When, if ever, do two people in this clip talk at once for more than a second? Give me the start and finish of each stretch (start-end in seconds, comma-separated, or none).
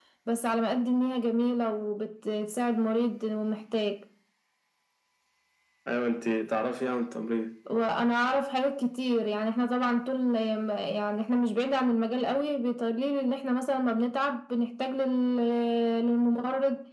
none